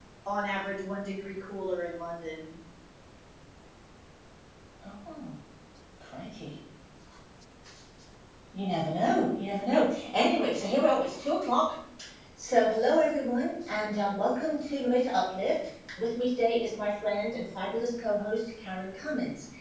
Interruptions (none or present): none